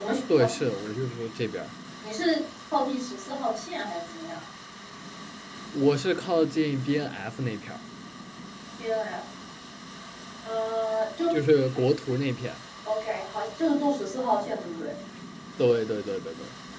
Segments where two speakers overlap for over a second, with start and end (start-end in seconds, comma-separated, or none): none